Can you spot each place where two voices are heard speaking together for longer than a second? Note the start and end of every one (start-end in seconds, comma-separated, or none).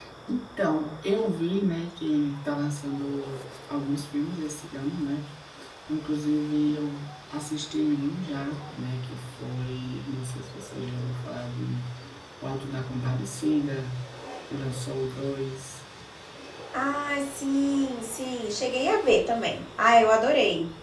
none